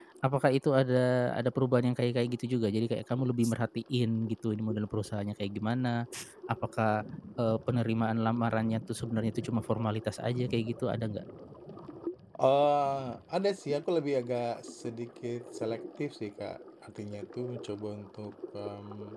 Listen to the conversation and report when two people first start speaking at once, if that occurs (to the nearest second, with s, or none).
none